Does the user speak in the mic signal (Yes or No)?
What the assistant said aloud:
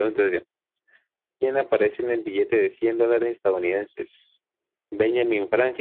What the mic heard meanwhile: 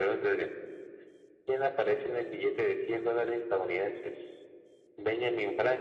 No